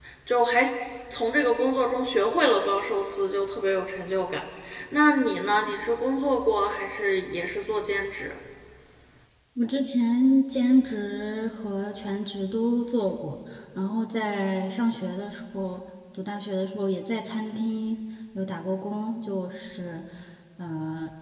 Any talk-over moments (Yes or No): No